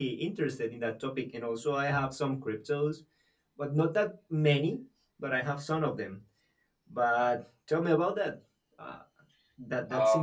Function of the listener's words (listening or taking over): taking over